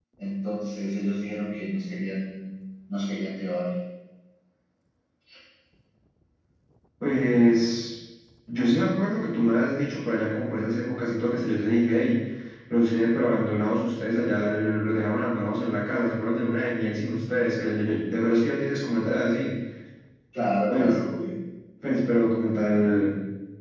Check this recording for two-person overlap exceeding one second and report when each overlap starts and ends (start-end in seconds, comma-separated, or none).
none